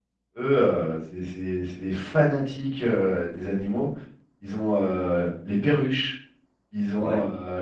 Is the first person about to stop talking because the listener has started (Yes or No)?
No